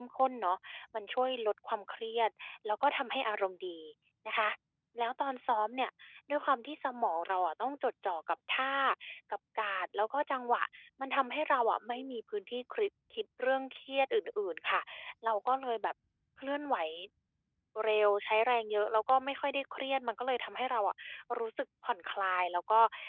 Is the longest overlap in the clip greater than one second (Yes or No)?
No